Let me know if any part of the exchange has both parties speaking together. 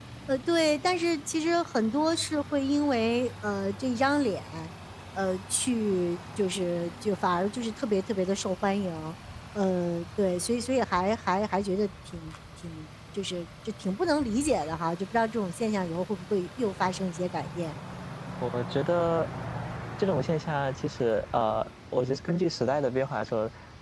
No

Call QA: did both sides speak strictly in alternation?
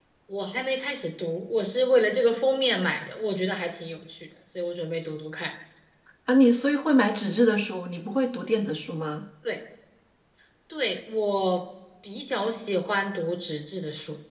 Yes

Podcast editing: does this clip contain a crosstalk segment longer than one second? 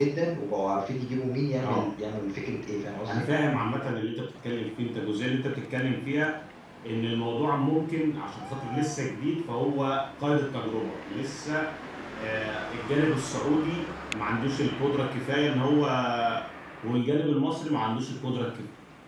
No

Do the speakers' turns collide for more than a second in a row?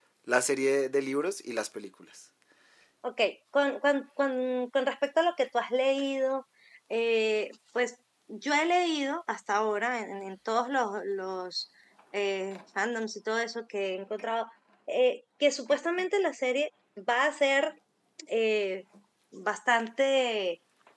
No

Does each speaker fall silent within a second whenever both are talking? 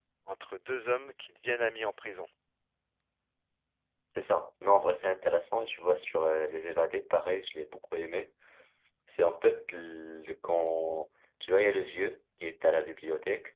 Yes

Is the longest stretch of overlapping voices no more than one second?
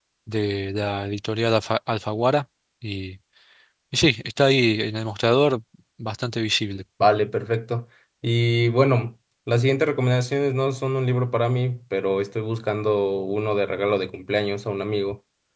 Yes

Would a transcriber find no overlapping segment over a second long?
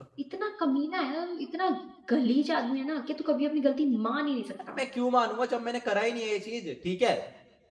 Yes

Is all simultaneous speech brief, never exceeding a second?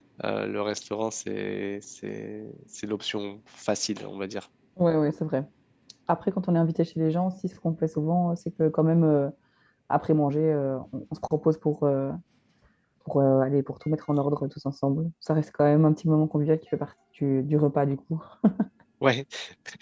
Yes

